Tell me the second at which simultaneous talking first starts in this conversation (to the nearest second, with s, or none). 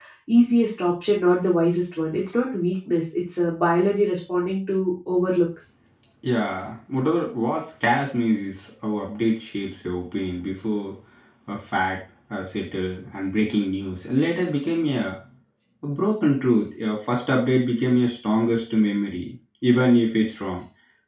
none